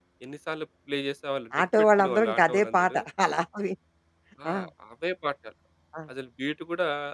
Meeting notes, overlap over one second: present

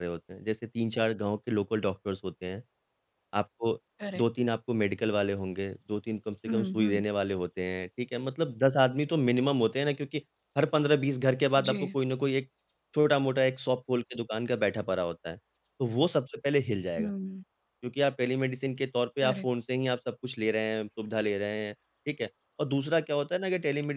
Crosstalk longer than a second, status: none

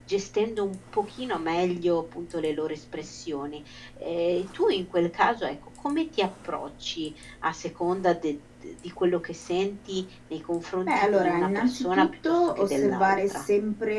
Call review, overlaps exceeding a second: present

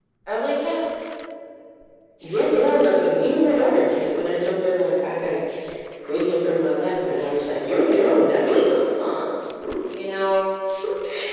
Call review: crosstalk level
none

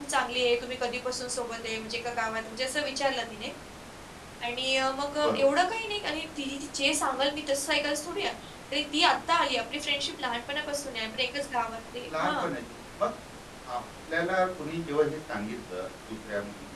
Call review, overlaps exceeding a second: none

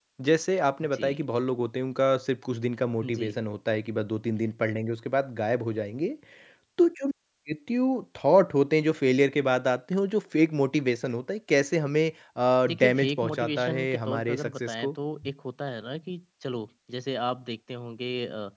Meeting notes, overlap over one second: present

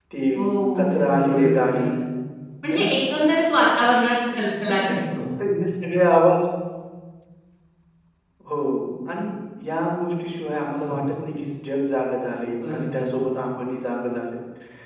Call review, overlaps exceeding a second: present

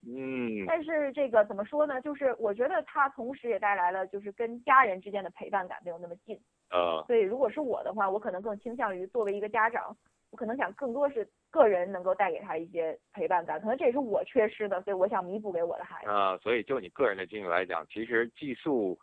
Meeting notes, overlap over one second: none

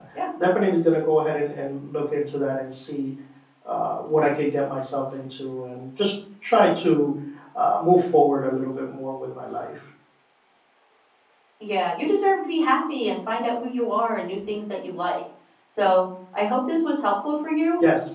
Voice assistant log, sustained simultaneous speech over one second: none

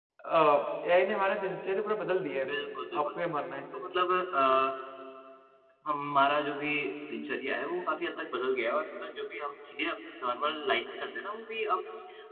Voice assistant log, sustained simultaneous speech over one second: none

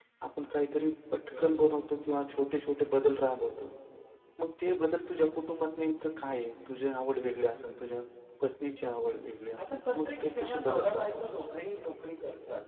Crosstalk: present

